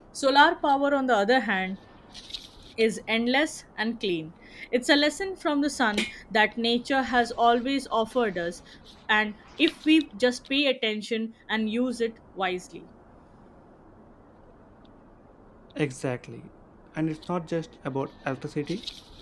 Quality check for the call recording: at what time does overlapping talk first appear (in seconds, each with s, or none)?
none